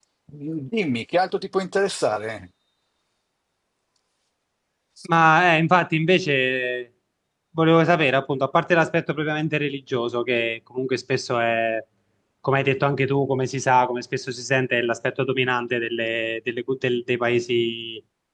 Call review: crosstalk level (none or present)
none